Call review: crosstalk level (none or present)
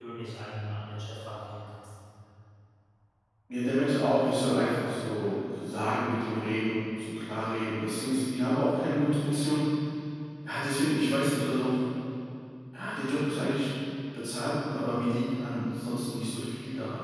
none